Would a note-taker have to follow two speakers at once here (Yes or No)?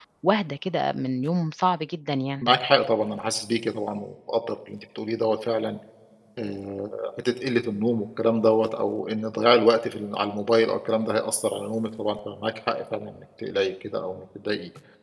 No